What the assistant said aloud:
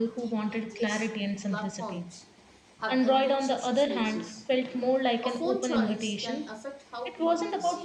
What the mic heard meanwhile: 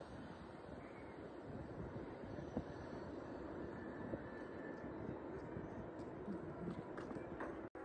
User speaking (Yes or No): No